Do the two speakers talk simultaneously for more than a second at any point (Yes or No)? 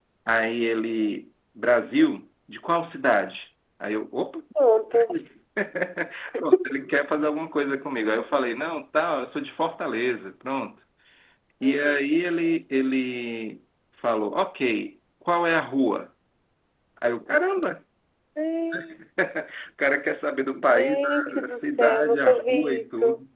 Yes